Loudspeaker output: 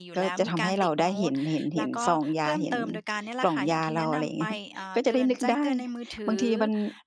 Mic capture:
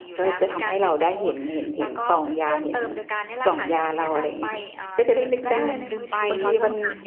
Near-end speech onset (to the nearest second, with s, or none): 6 s